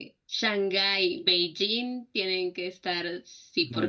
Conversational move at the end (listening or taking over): taking over